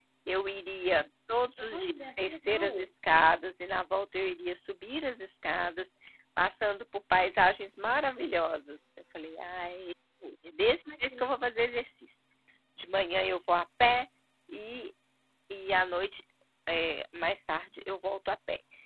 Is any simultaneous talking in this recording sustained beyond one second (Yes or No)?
Yes